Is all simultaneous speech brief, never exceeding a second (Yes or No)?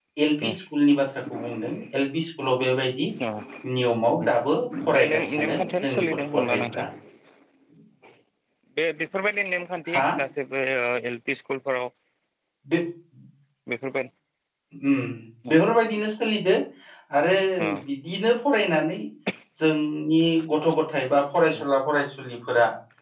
No